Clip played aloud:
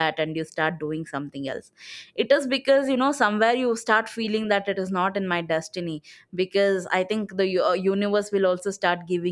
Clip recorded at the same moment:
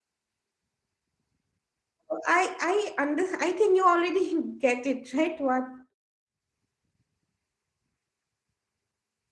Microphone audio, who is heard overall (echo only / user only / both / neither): user only